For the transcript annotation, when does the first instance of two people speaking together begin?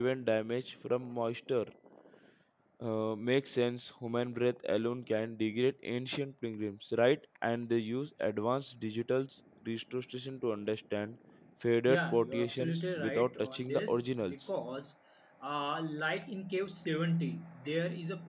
11.9 s

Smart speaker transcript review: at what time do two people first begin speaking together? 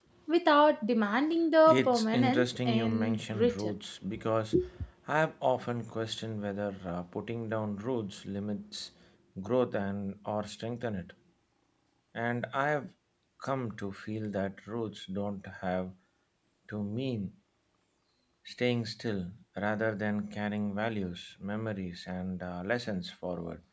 1.7 s

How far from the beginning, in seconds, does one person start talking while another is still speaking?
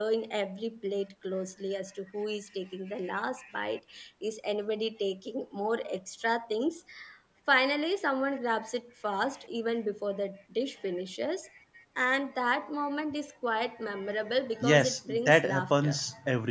14.6 s

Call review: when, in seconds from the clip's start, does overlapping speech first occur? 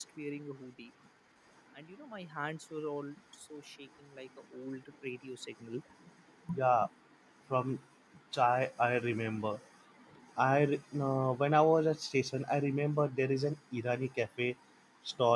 none

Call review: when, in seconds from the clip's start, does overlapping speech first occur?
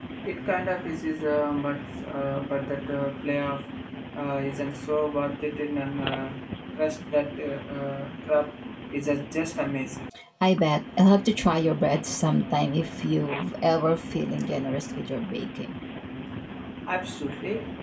none

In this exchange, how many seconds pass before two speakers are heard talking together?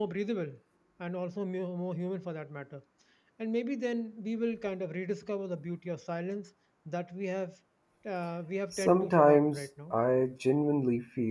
8.7 s

